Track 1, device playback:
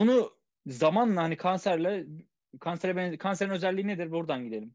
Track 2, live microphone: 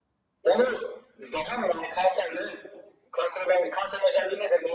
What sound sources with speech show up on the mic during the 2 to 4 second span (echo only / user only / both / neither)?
echo only